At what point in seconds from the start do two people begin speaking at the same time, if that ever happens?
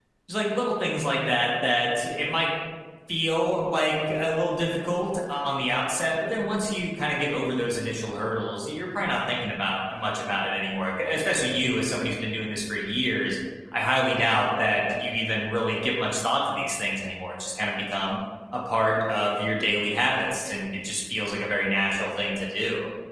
none

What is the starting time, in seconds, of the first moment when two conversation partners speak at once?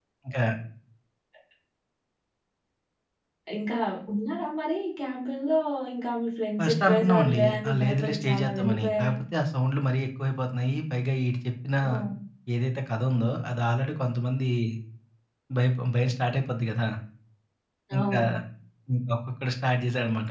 6.6 s

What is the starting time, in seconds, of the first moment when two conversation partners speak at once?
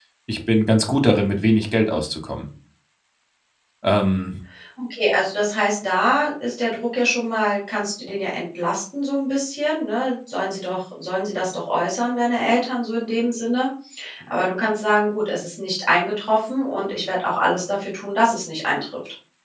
none

